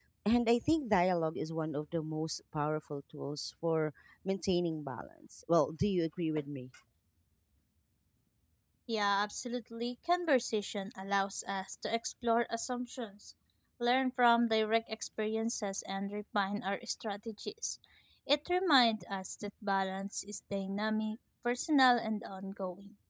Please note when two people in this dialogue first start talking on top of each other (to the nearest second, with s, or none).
none